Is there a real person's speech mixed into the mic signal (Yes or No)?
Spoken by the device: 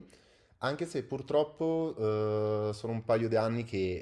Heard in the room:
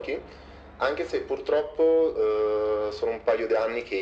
No